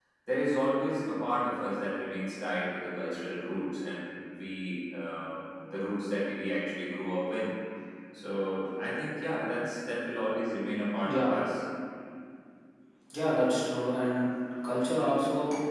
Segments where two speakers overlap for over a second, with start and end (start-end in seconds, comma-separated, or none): none